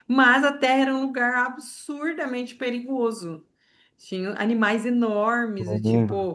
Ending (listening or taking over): listening